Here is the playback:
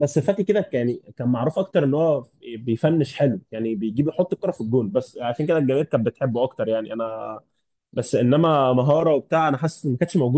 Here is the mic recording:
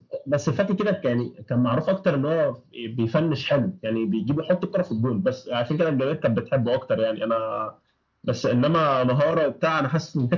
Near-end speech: none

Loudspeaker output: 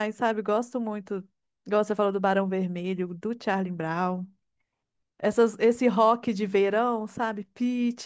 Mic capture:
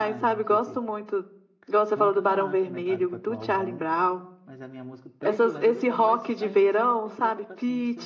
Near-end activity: present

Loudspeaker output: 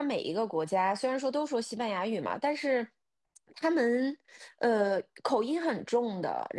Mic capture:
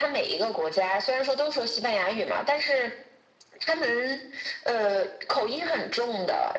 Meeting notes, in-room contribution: none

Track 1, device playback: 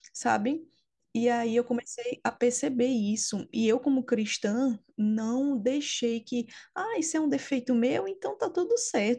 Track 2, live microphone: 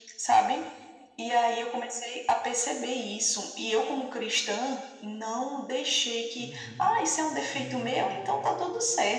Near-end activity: present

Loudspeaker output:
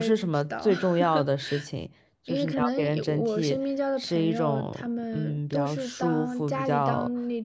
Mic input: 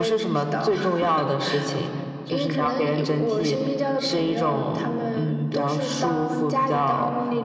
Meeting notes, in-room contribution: none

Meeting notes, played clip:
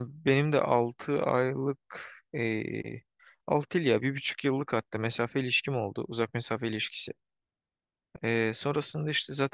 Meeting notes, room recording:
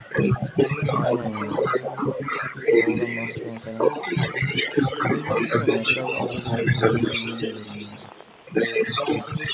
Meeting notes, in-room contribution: present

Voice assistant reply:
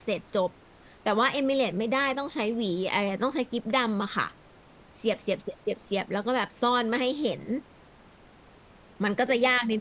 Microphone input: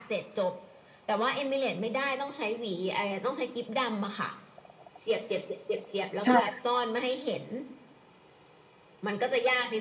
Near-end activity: present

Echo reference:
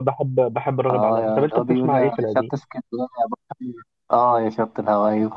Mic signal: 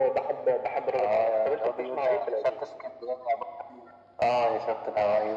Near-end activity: none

